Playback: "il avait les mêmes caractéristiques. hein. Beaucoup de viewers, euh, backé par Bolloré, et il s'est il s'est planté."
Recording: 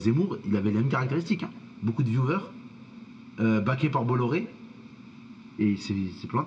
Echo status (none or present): present